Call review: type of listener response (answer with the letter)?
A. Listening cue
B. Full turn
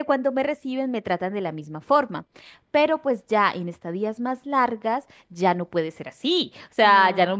A